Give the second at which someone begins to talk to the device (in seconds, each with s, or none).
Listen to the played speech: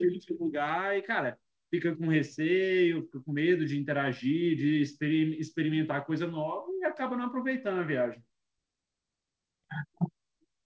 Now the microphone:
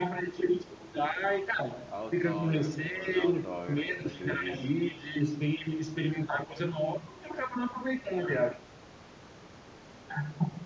1.9 s